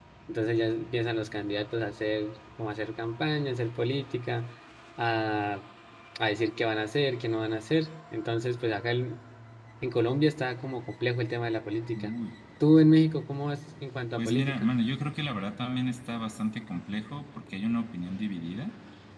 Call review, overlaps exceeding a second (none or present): none